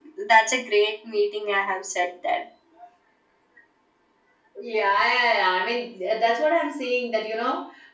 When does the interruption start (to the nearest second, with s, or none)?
none